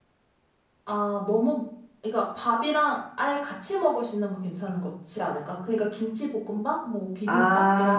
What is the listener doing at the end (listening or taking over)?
taking over